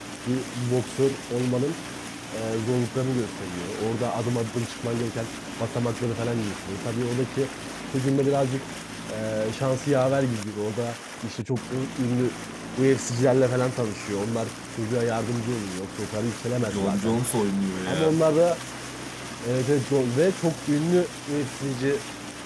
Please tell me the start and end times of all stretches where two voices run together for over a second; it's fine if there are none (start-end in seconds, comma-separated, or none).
none